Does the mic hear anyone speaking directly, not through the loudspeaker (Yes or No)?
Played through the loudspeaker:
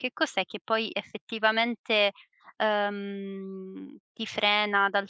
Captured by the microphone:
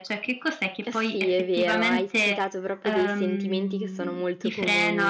Yes